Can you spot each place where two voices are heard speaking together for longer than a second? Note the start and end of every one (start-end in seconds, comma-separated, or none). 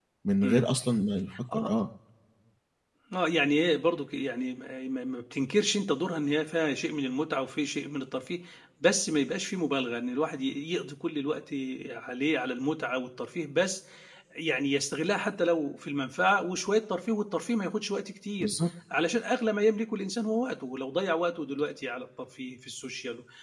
none